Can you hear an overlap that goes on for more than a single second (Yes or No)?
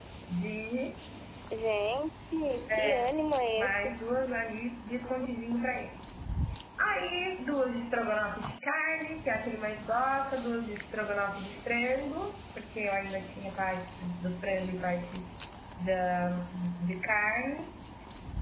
No